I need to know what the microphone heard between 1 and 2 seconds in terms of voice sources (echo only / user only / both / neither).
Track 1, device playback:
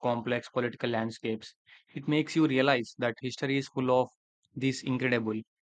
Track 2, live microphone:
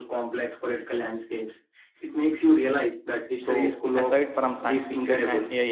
echo only